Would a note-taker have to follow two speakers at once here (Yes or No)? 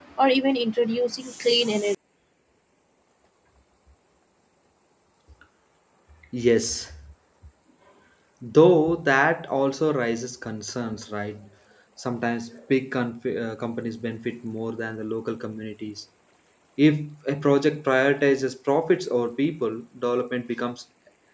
No